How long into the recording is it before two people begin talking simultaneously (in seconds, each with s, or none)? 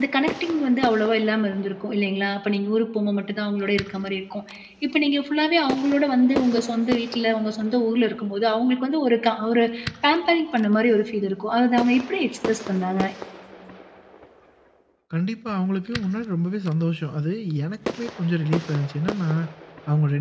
none